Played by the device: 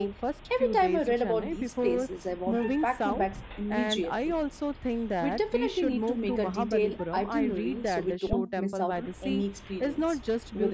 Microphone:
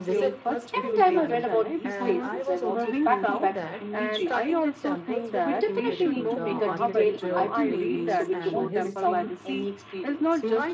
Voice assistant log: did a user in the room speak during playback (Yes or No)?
Yes